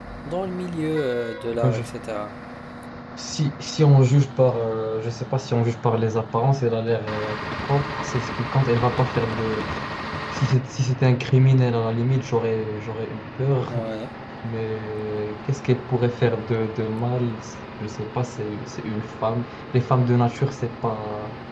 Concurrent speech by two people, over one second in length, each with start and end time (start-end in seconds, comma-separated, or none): none